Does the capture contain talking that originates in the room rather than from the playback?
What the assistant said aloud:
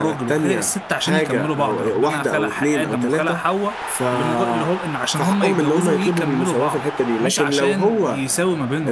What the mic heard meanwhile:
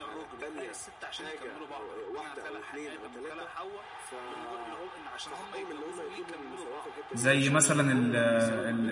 Yes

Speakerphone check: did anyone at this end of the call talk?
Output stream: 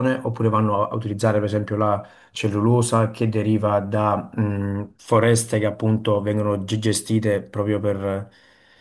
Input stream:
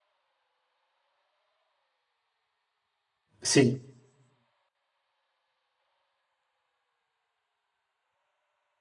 Yes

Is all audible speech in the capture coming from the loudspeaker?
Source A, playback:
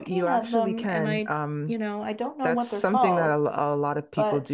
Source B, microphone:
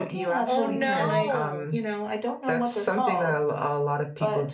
No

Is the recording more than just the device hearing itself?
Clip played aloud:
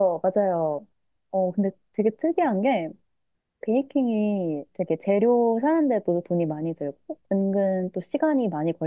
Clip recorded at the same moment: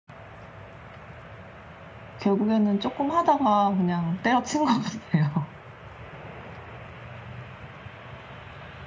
Yes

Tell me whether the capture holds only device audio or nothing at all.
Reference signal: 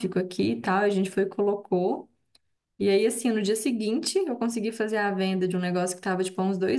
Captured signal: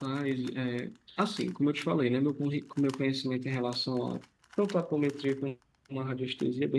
No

